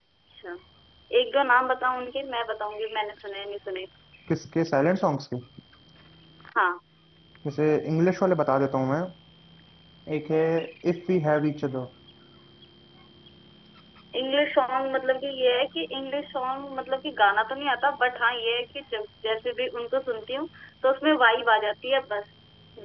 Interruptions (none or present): none